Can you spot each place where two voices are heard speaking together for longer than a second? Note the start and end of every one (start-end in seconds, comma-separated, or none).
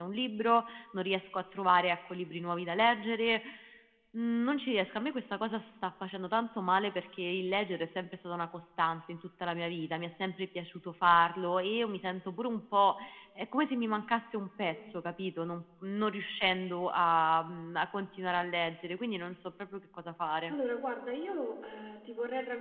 none